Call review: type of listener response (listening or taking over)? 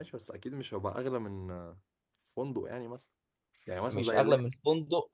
taking over